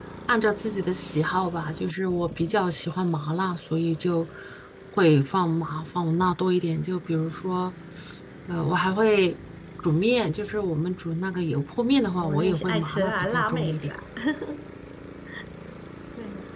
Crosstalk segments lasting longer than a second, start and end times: 12.1-13.9

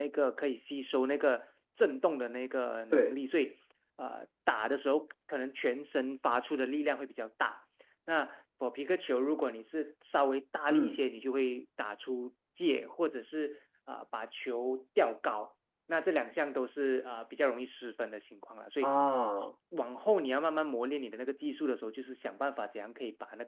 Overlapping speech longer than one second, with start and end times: none

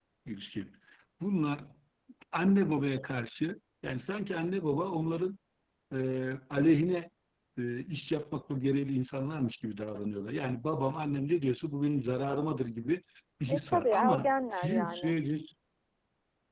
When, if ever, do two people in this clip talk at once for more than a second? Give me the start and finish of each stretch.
13.5-15.2

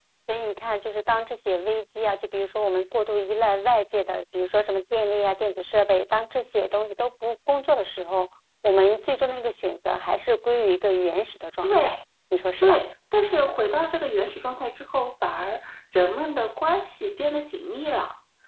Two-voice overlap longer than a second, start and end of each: none

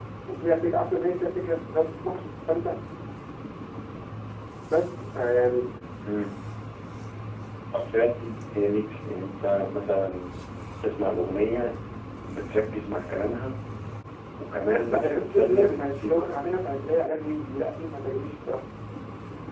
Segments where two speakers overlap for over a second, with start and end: 14.7-16.3

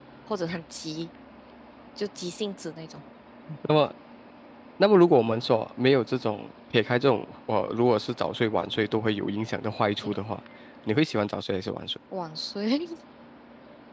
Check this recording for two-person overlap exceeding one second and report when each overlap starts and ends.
none

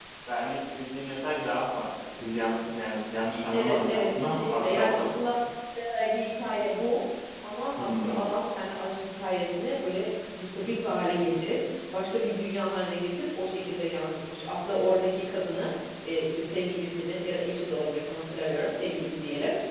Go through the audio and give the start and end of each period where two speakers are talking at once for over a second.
3.5-5.4

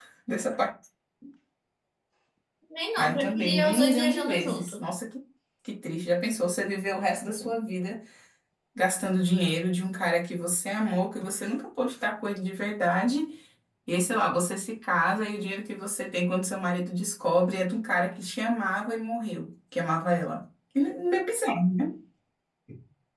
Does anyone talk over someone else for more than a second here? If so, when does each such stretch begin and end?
3.0-4.8

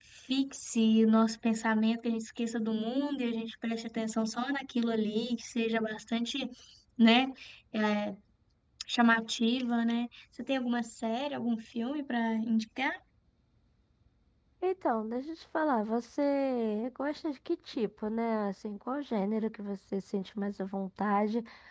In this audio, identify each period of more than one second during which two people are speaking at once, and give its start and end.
none

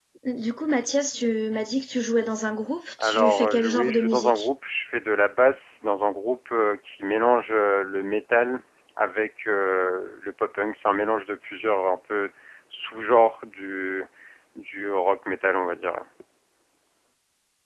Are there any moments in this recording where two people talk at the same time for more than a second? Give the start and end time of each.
3.0-4.5

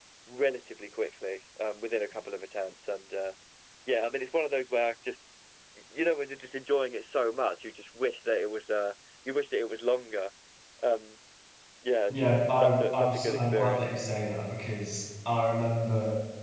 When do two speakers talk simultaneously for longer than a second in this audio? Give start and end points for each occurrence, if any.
12.1-13.8

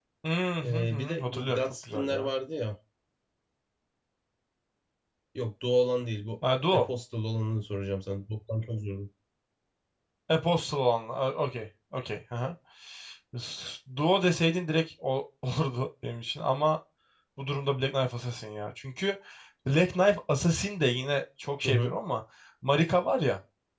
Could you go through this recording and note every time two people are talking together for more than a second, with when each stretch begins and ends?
0.6-2.3

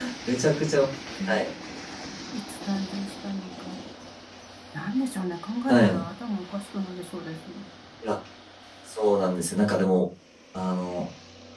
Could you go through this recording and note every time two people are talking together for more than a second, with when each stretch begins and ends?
none

